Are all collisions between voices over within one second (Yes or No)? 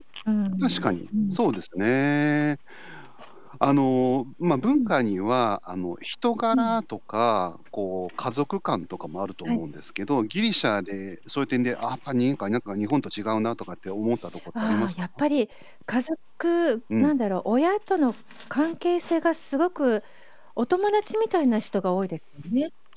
Yes